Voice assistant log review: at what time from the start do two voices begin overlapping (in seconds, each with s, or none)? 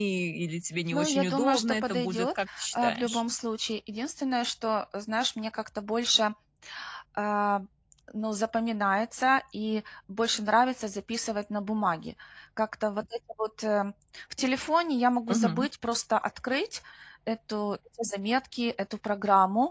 0.9 s